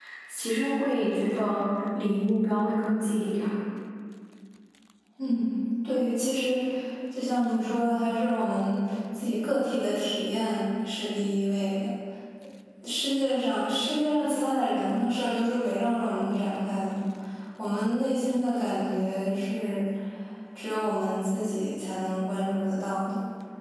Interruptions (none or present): none